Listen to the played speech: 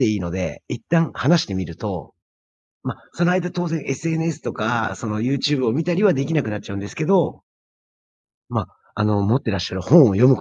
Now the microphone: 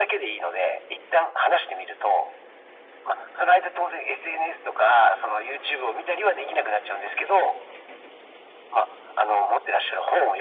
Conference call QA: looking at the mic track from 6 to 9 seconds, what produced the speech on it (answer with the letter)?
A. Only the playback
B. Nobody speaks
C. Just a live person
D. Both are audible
A